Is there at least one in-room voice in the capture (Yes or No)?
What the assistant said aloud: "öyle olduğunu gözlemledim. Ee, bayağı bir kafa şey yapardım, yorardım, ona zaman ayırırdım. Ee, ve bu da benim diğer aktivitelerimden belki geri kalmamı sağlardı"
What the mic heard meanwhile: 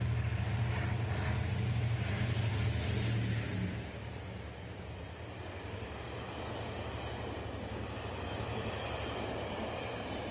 No